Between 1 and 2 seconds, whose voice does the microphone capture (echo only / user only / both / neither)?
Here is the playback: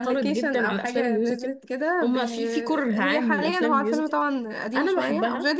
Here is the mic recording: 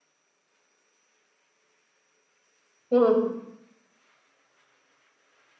neither